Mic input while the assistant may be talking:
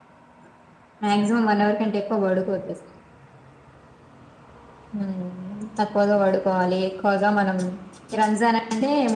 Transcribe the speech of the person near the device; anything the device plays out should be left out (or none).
none